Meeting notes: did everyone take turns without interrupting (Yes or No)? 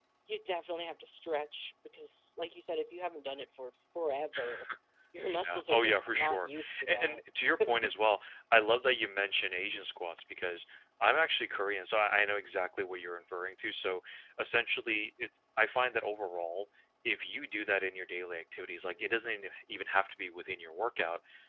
No